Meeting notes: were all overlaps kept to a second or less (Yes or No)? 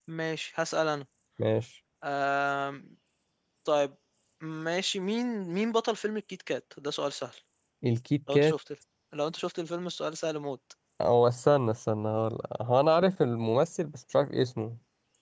Yes